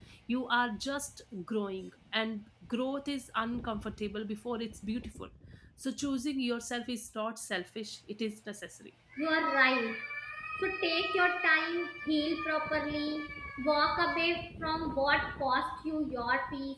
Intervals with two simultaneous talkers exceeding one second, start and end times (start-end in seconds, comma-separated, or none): none